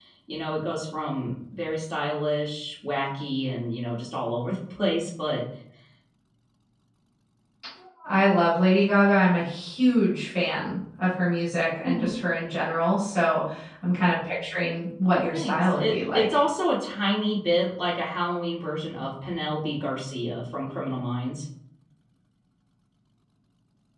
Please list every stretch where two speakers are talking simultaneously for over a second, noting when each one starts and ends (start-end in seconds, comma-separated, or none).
15.1-16.2